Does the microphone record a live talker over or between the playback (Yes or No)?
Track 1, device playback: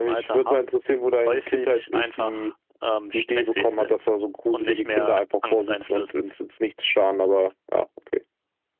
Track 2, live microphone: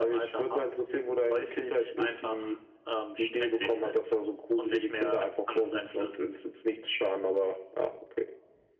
No